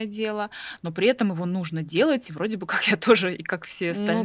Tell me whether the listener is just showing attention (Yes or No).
No